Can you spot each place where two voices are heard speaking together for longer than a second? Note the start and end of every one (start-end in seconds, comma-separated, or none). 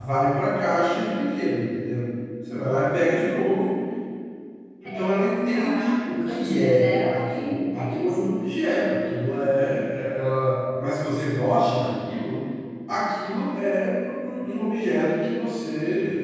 4.8-8.1